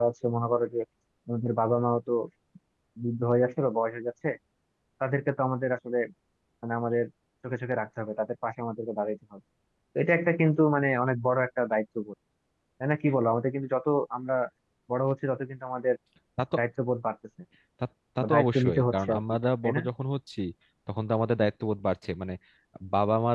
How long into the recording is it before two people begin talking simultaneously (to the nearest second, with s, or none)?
18 s